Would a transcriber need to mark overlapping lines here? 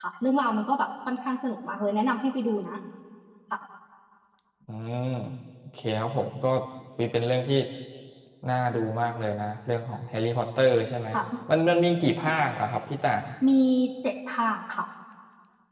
No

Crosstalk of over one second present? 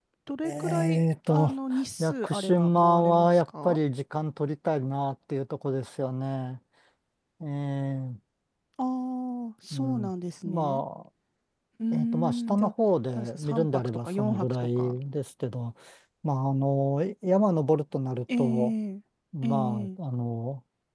Yes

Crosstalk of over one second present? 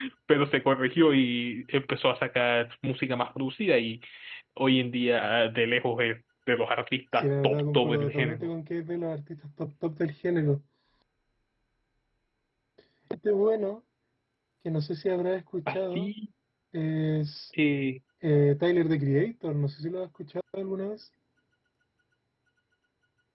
Yes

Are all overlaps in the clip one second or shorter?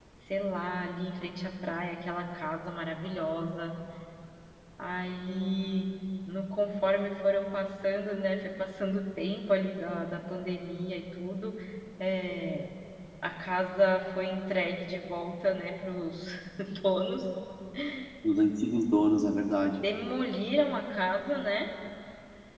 Yes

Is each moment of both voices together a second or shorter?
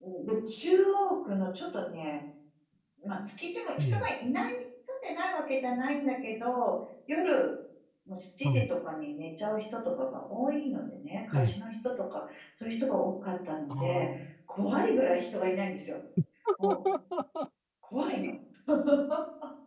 Yes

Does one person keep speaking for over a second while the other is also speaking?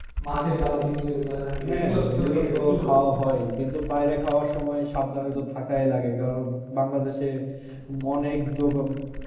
Yes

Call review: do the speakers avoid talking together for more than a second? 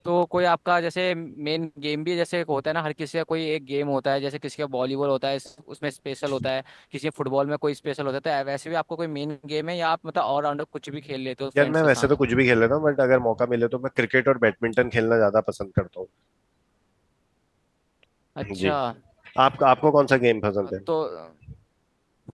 Yes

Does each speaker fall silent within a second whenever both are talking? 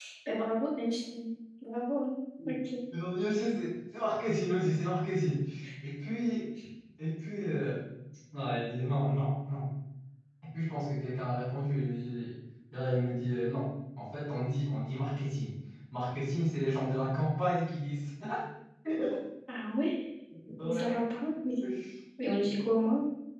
Yes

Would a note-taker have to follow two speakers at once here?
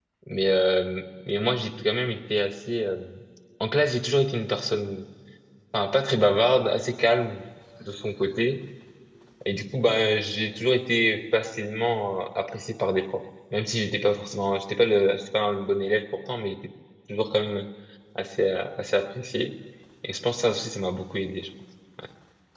No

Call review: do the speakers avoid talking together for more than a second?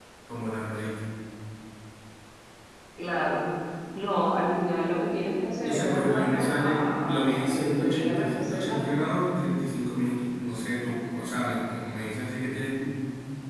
No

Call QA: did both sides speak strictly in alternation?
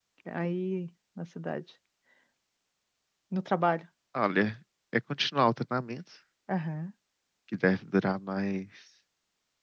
Yes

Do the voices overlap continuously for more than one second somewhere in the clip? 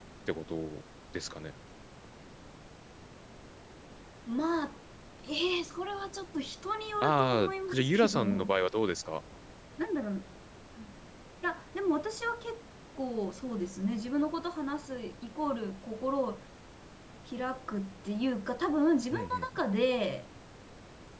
Yes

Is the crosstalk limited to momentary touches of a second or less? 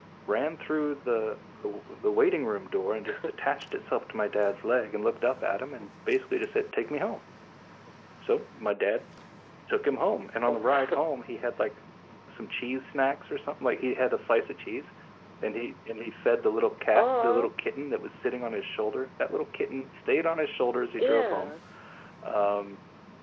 Yes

